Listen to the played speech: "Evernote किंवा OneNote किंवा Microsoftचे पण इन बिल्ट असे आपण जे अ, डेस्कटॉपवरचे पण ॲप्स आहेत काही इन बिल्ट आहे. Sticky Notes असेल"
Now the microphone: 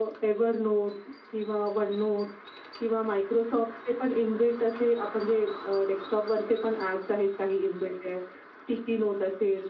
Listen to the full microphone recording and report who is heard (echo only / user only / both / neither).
echo only